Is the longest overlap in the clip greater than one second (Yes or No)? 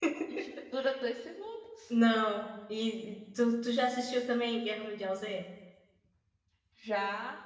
No